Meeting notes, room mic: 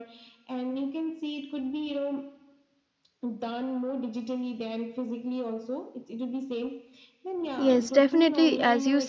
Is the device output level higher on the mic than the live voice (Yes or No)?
No